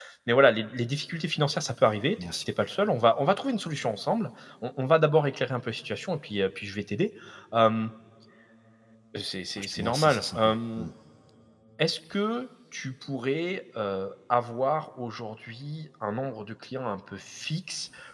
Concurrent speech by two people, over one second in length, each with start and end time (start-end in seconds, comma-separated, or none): 9.6-10.9